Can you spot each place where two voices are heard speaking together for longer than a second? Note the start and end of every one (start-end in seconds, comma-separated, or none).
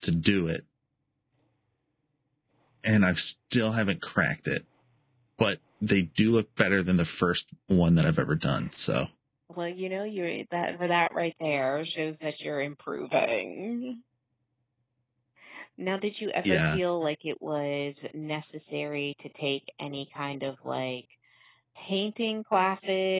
none